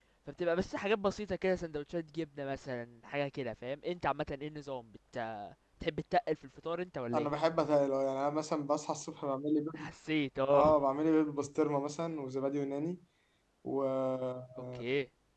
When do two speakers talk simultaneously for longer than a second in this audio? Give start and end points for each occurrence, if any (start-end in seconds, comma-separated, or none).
none